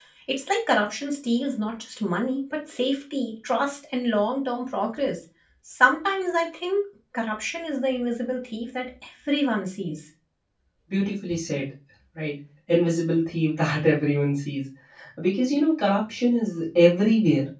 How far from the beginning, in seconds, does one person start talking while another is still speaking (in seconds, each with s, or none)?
none